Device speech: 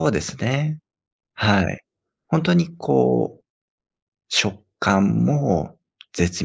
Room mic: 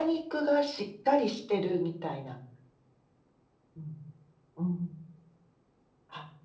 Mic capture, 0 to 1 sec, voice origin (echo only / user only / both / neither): user only